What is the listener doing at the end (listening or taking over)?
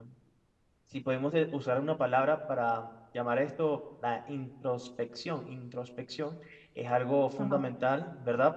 listening